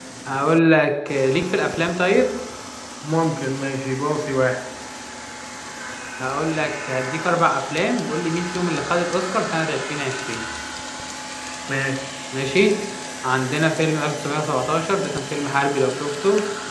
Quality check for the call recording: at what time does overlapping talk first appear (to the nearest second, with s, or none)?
none